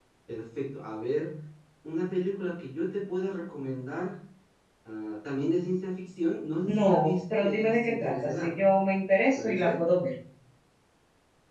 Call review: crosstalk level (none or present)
present